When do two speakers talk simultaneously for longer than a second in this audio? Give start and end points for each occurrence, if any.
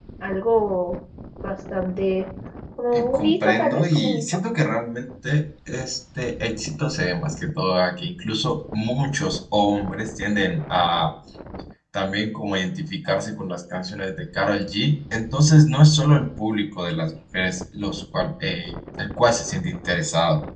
2.9-4.2

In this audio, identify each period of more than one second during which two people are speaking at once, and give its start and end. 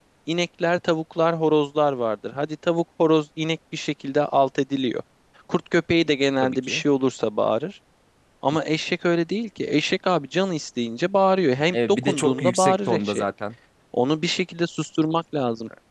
11.7-13.2

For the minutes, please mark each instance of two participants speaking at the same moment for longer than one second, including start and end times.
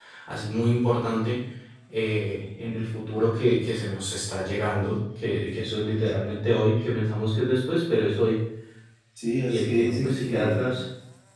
9.4-10.8

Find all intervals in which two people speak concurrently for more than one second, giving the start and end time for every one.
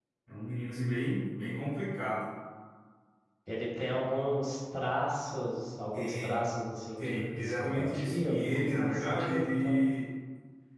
7.0-9.8

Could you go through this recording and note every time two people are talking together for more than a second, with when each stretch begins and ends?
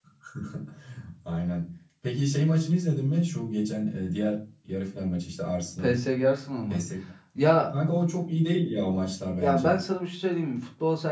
none

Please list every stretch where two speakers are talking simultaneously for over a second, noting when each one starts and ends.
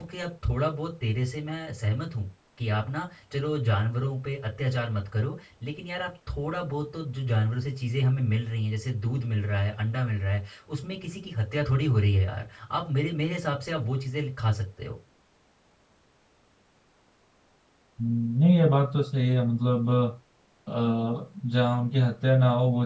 none

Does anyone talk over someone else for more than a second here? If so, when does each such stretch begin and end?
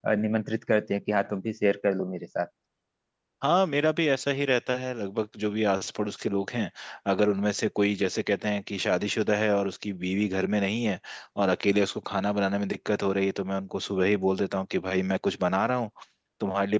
none

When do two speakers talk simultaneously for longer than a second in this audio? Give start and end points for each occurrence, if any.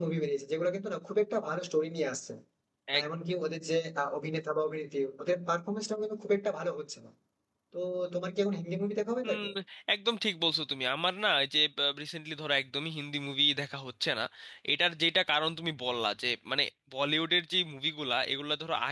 none

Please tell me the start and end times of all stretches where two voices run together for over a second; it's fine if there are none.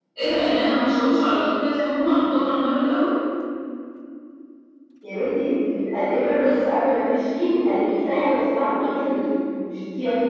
none

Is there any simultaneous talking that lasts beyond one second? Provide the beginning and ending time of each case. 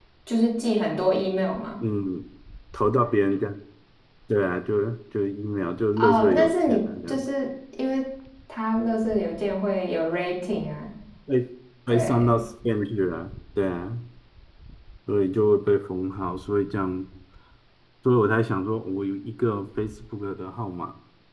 6.0-7.3

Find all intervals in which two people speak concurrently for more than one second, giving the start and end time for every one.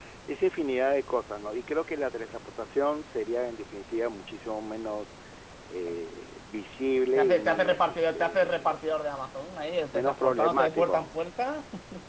7.2-8.9, 9.9-11.1

